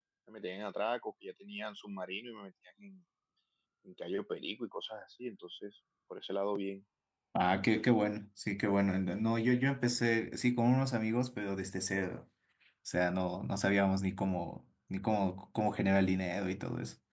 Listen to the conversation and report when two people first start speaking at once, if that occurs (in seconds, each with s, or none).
none